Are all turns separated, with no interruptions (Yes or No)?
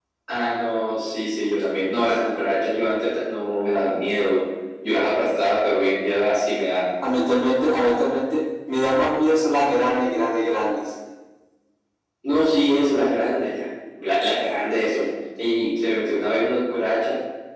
Yes